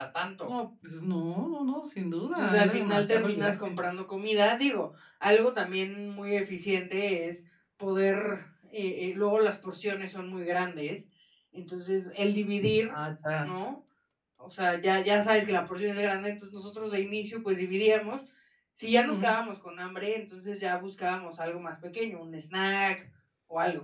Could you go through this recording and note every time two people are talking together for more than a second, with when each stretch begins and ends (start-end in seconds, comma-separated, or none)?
2.3-3.8